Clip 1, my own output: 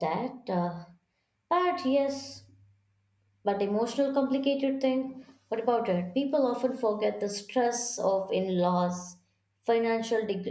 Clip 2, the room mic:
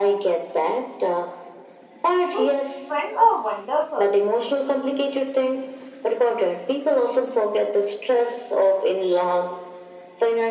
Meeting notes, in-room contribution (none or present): present